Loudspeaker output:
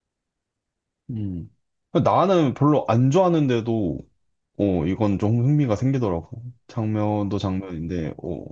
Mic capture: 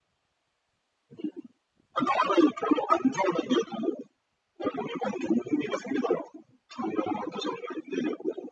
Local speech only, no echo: none

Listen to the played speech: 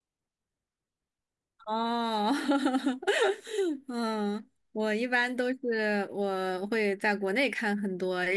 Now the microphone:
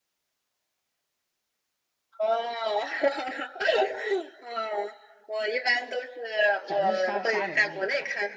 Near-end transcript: 讲的是杀杀人的那一块儿。

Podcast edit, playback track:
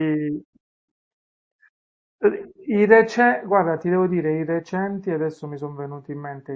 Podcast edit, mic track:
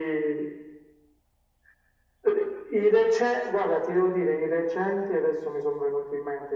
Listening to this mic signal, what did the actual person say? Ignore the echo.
none

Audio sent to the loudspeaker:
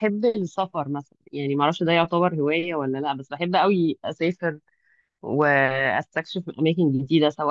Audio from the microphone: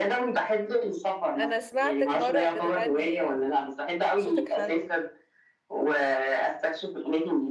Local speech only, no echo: انا سمعتك مرة بتغني صوتك حلو

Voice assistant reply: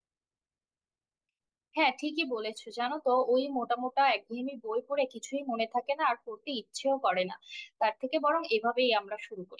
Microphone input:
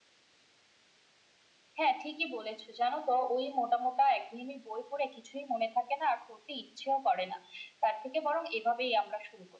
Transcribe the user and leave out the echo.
none

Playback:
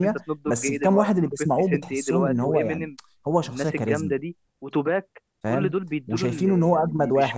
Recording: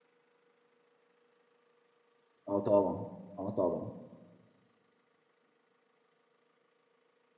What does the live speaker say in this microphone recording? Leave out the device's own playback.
اه طبعا اه طبعا

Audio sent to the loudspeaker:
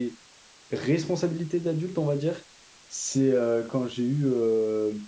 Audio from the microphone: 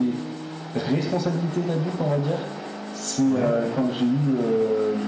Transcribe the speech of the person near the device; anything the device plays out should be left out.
Ouais,

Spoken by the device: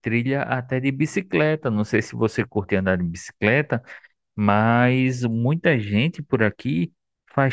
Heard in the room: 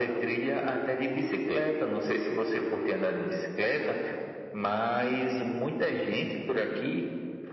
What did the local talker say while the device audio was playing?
none

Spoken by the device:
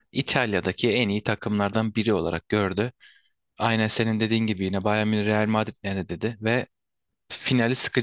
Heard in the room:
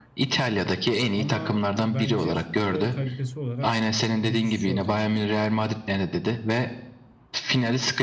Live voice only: Ama bence futbol kalitesi olarak müthiş bir şey ortaya çıkacak.

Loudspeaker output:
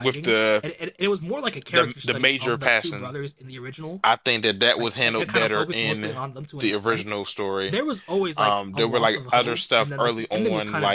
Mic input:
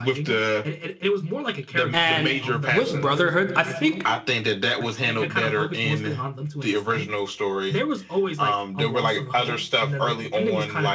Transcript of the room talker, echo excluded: And with Brotherhood, I think

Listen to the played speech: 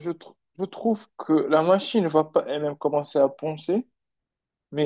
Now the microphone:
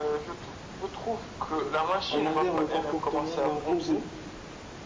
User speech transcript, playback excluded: on adhère le comportement d'un robot.

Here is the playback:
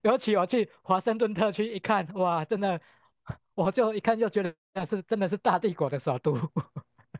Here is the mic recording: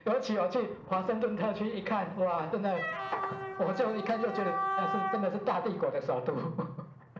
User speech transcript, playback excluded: none

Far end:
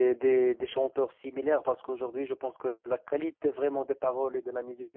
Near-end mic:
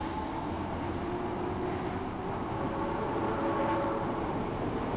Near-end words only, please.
none

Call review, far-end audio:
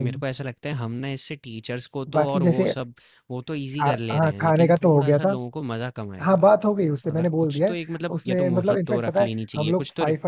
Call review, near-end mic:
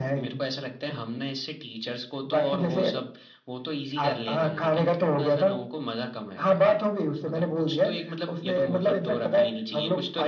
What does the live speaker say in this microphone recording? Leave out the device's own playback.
none

